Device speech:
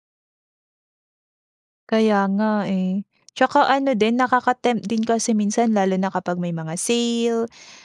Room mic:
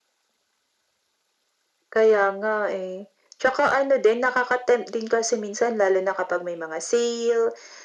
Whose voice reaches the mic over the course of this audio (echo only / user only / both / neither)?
echo only